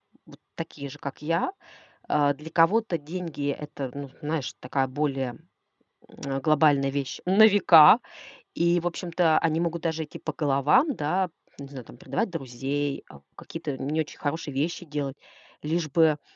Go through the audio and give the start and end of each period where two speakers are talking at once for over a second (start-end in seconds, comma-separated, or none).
none